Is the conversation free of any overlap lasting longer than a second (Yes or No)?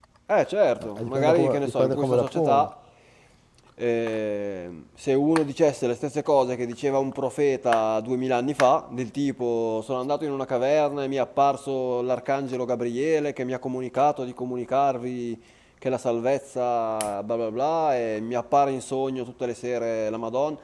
No